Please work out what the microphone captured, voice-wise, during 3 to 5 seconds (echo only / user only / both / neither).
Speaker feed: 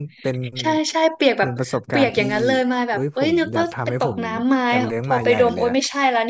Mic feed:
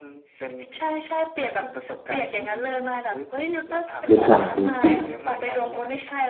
both